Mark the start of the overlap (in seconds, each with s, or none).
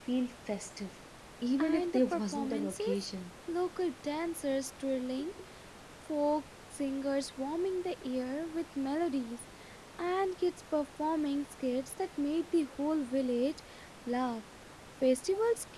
1.6 s